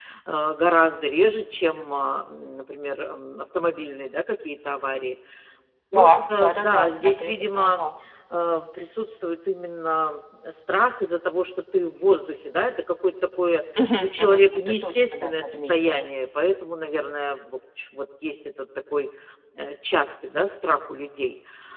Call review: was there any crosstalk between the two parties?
Yes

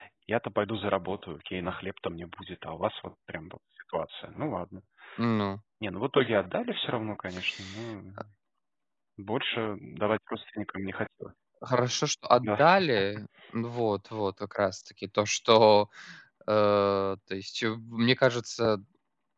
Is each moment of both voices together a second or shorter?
Yes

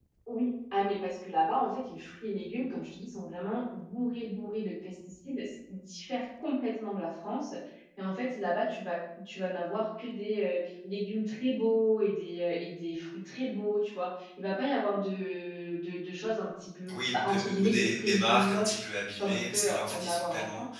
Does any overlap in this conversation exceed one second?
Yes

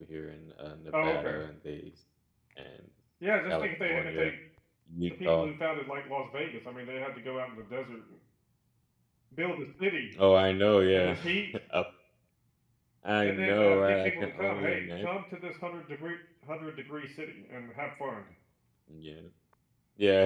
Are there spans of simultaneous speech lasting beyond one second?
Yes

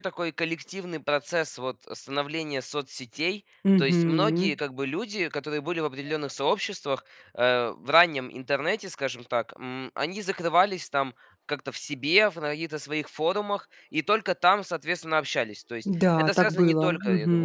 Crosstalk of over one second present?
Yes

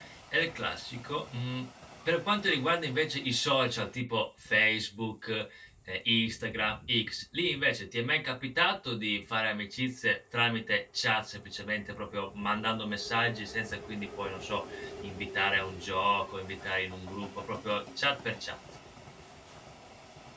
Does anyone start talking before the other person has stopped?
No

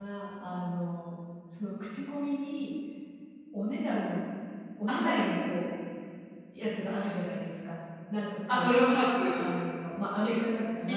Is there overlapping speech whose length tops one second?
No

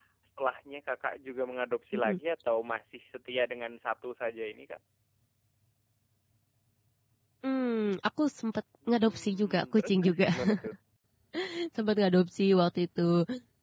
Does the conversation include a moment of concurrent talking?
Yes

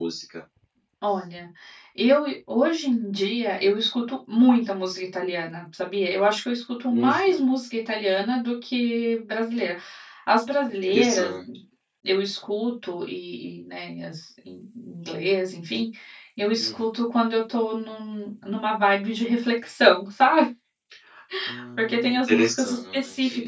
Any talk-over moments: Yes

